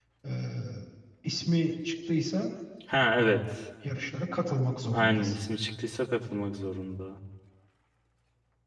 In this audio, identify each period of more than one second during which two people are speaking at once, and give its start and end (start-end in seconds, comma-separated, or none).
none